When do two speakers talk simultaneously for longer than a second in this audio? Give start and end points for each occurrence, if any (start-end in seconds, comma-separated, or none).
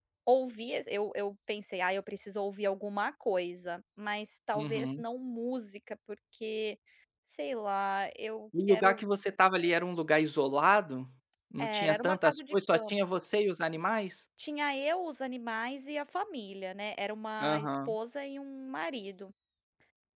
11.6-13.0